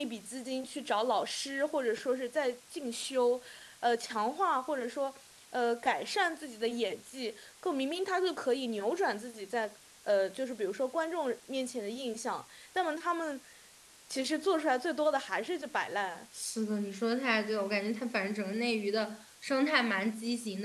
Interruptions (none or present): none